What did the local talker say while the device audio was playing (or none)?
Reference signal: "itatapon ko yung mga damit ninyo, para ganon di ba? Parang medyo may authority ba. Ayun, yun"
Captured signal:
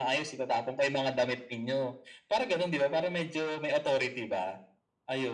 none